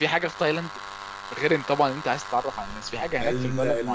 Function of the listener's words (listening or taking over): taking over